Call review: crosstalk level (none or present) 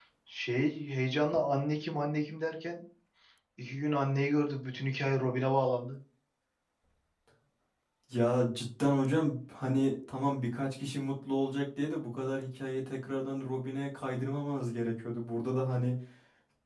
none